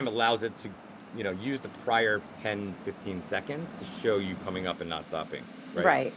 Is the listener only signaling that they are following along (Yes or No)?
Yes